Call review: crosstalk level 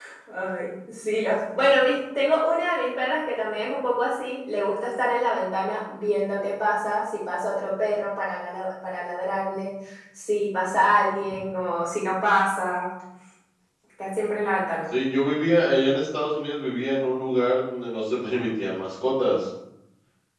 none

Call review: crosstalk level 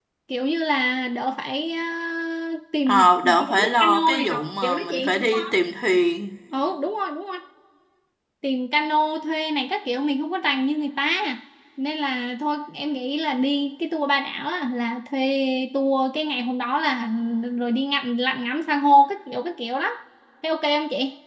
present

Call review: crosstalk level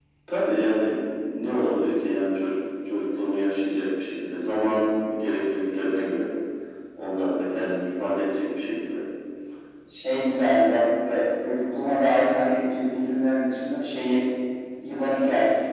none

